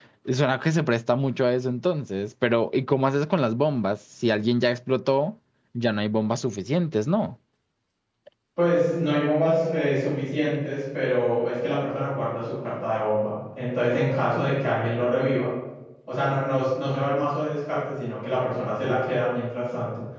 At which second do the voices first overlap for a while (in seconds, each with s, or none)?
none